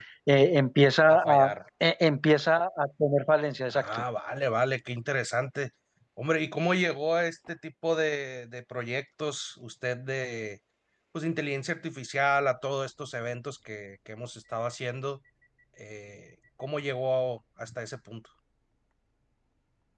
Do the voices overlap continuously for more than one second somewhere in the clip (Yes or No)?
No